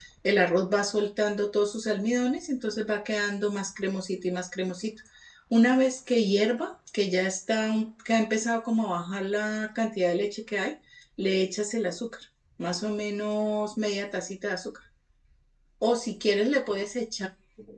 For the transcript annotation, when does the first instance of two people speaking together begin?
none

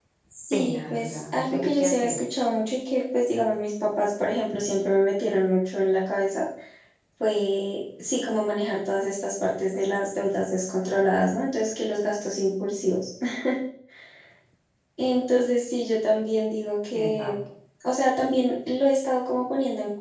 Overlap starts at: 0.5 s

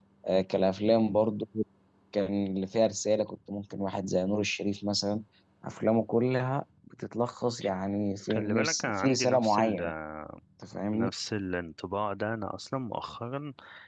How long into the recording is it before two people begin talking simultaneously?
8.3 s

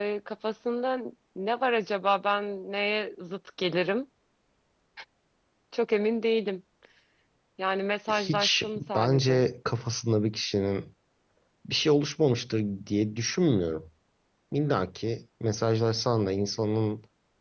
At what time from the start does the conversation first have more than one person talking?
8.1 s

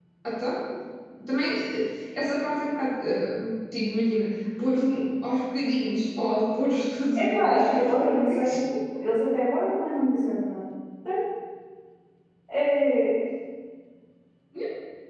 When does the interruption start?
7.2 s

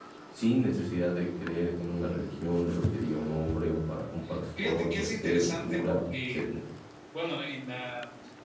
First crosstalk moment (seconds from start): 4.6 s

